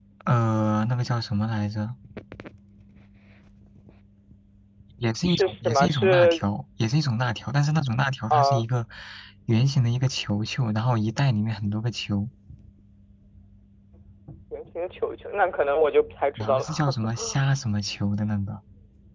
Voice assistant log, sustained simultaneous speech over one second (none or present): present